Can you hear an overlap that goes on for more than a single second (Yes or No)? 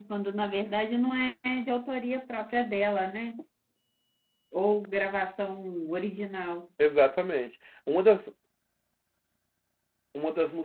No